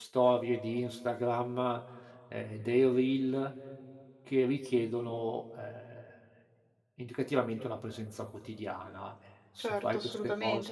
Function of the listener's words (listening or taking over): taking over